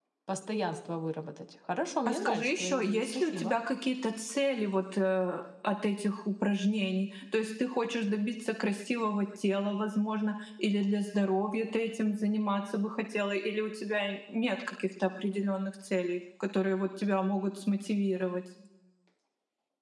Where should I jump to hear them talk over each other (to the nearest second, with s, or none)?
2 s